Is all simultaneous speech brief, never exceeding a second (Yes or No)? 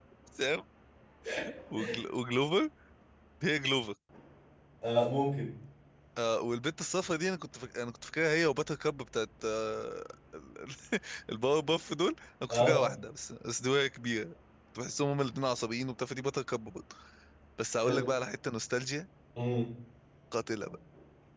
Yes